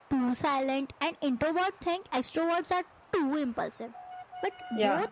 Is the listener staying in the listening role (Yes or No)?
Yes